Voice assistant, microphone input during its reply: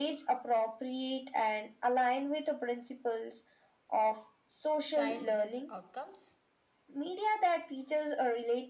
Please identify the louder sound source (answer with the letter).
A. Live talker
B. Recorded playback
B